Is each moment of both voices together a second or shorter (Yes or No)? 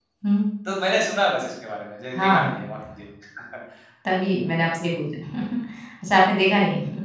Yes